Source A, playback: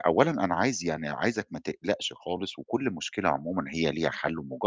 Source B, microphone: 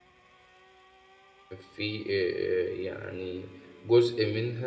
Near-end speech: present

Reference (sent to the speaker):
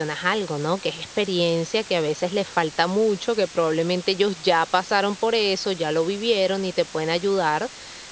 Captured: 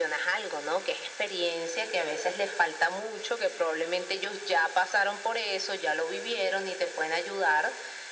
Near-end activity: none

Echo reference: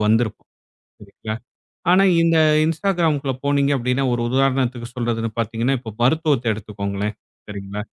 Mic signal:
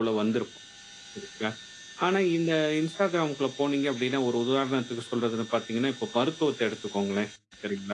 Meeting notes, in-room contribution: none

